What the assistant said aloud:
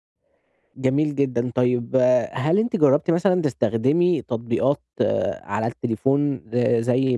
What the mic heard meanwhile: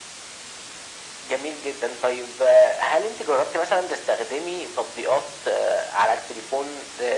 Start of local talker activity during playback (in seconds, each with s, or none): none